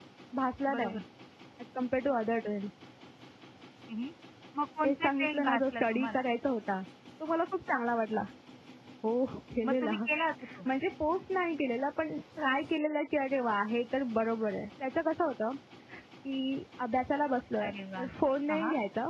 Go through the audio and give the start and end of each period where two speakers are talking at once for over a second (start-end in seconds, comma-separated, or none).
4.8-6.2